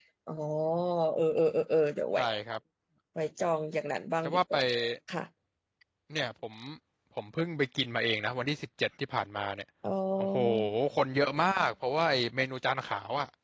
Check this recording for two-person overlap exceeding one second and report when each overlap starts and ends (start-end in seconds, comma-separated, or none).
none